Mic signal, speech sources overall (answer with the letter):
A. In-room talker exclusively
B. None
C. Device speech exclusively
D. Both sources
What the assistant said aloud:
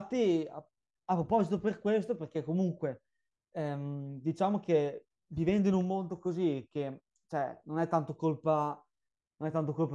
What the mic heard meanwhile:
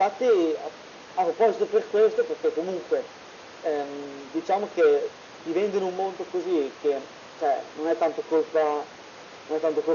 C